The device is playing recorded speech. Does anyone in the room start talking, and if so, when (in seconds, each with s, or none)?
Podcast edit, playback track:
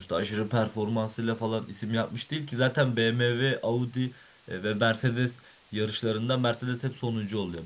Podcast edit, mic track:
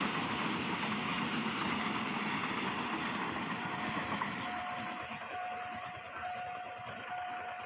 none